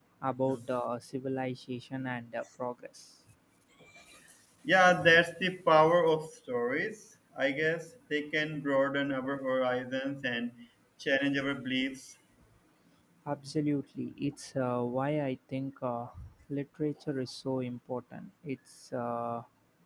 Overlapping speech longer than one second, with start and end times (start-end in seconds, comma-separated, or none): none